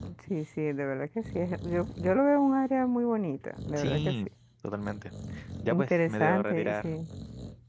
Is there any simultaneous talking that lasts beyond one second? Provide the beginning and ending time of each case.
5.7-6.9

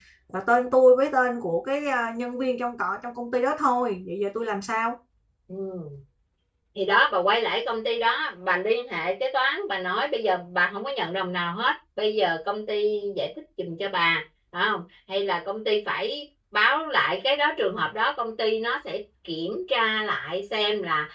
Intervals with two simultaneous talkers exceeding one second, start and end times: none

